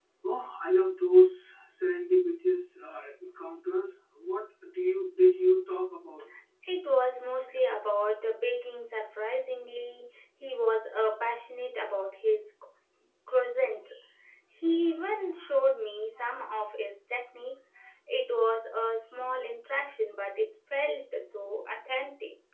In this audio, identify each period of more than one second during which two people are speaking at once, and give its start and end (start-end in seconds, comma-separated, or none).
none